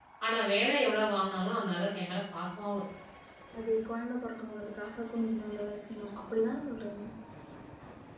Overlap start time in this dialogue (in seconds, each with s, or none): none